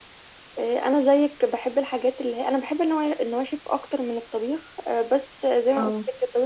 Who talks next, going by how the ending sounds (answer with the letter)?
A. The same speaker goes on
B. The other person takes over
A